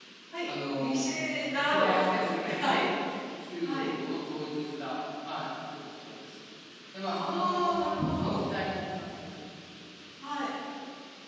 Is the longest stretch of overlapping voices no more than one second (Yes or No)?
No